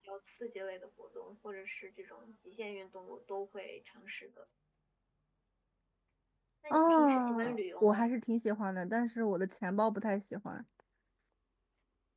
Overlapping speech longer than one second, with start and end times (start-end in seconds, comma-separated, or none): 6.7-8.1